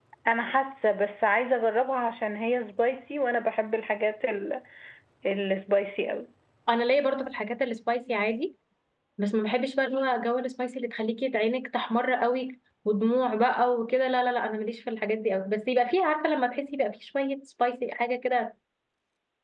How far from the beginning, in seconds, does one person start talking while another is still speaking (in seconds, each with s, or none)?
none